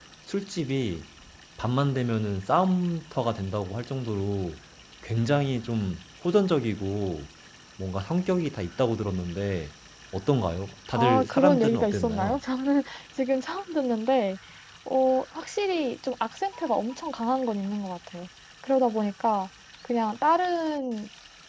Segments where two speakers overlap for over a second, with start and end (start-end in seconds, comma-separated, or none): 10.9-12.4